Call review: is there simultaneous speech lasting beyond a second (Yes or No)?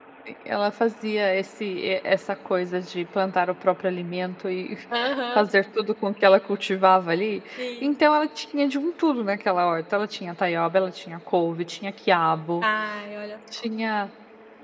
No